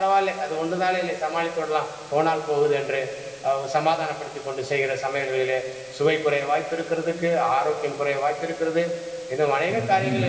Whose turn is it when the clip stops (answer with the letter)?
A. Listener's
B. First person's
B